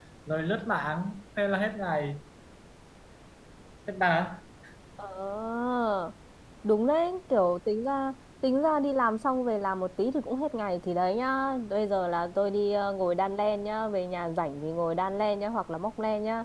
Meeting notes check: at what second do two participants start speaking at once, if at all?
none

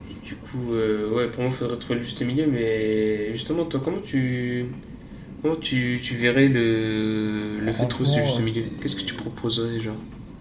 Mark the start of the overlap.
7.6 s

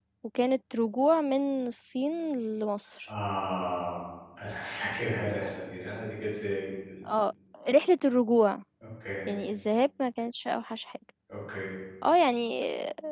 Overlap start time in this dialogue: none

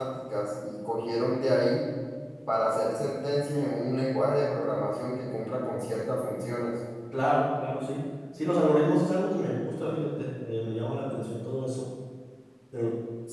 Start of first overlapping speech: none

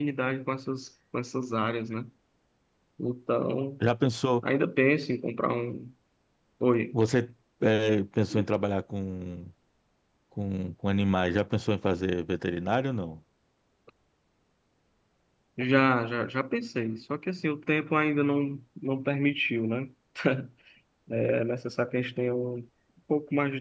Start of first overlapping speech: none

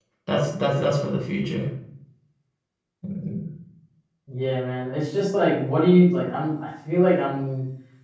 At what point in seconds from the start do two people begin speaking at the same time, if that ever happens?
none

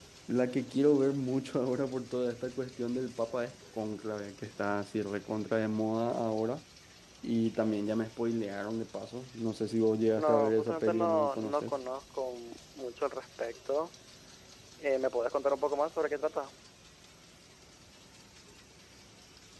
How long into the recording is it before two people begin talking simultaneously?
10.1 s

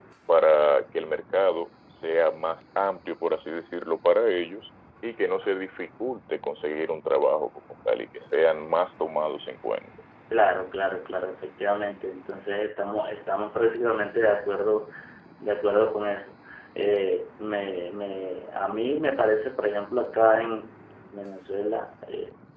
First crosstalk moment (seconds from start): none

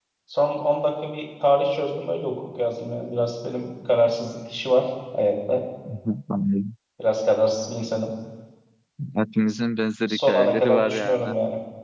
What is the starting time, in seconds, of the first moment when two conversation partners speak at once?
10.1 s

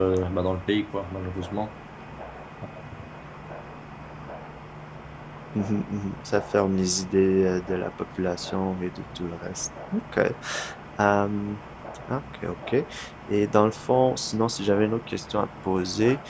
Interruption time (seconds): none

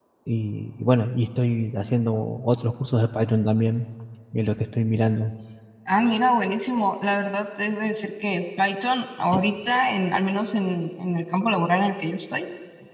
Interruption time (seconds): none

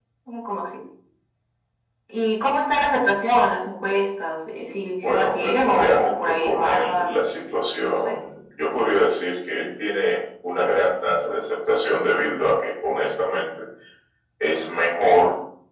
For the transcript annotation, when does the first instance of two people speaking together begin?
5.0 s

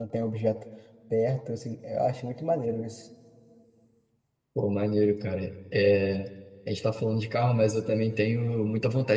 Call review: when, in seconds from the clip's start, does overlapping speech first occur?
none

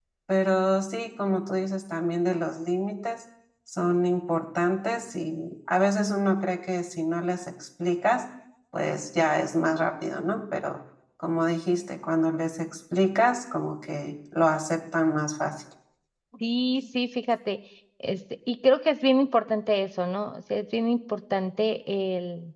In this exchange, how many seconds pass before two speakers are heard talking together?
none

